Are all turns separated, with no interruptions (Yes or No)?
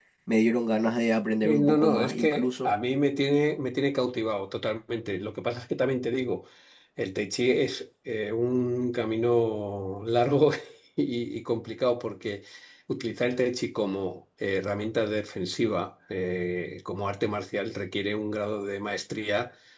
No